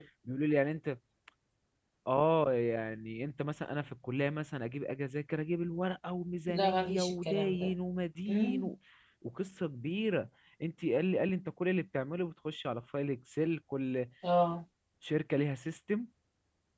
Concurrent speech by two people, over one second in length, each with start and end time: 6.5-7.7

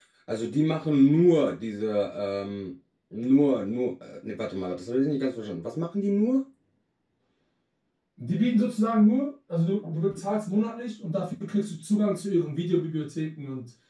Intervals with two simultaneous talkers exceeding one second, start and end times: none

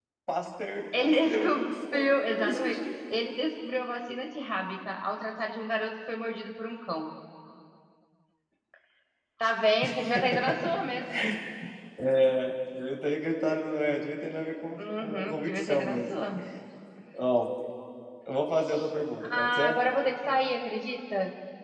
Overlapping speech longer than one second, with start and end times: 1.0-2.8, 14.8-16.0

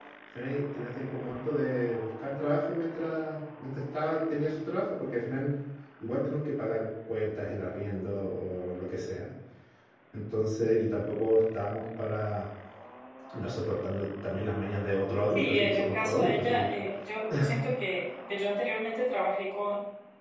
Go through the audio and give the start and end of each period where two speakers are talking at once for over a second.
15.3-16.7

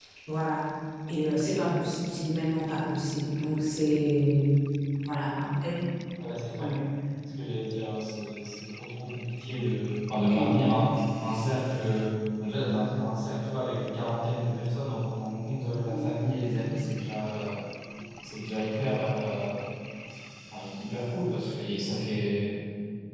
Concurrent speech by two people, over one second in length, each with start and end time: none

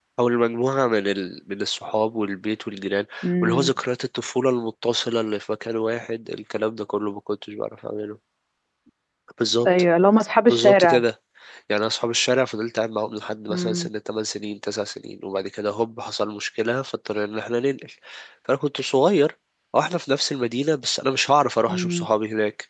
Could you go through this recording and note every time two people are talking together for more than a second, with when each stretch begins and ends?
none

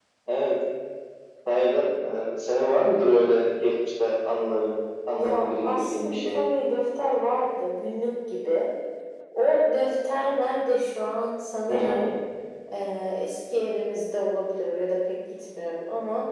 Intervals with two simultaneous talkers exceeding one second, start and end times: 5.2-6.4

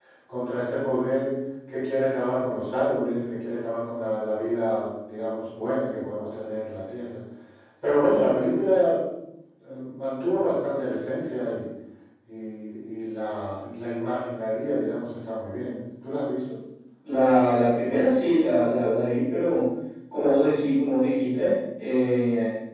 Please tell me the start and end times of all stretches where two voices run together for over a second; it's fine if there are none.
none

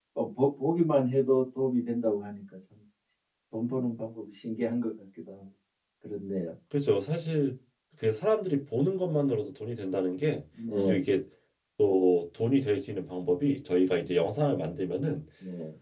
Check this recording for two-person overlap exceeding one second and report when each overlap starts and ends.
none

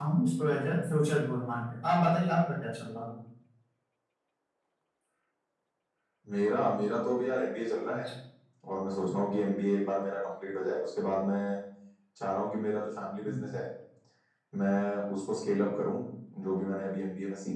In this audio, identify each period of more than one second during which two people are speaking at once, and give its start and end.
none

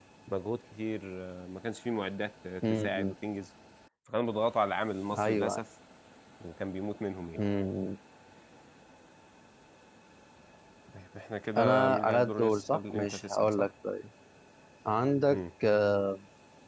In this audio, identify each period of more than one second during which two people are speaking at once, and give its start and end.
11.6-13.7

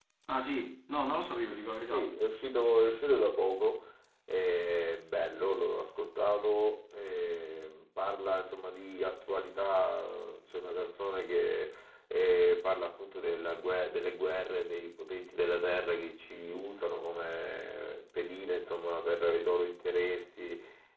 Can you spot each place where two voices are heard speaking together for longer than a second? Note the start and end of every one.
none

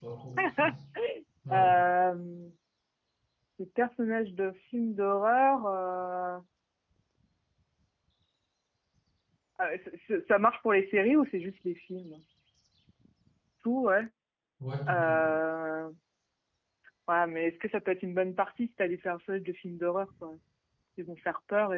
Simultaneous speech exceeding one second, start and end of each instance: none

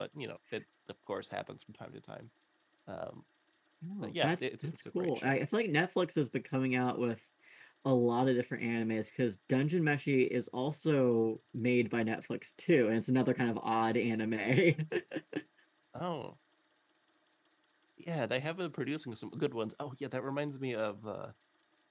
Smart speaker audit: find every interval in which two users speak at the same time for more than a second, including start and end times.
4.0-5.4

